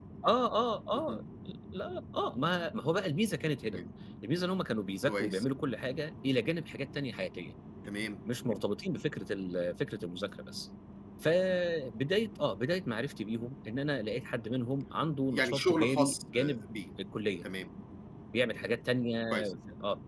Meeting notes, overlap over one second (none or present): present